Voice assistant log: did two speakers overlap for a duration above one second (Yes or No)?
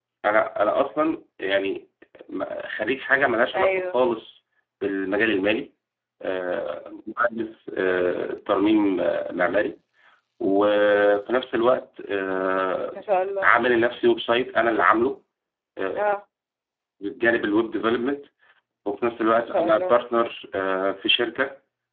No